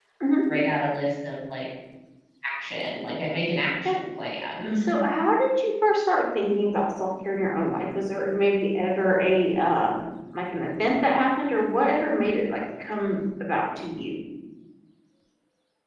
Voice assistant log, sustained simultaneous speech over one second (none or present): none